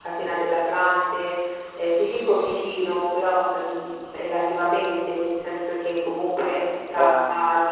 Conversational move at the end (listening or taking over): listening